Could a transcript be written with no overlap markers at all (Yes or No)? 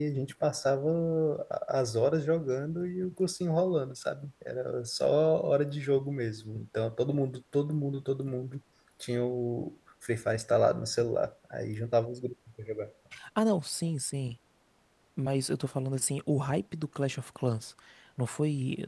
Yes